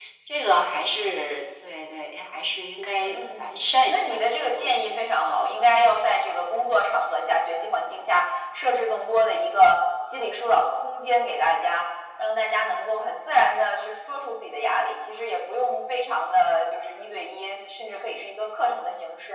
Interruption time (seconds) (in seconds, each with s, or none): 3.0 s